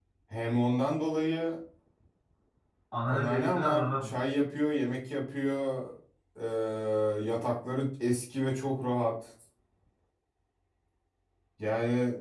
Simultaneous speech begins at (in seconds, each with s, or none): 3.1 s